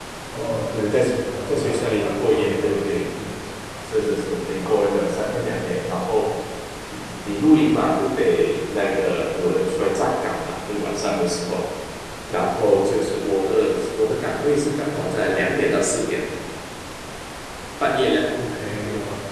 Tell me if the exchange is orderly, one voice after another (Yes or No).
No